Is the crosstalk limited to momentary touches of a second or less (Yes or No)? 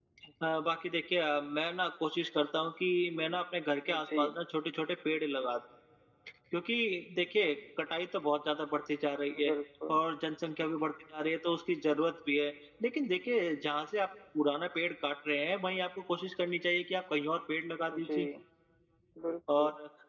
Yes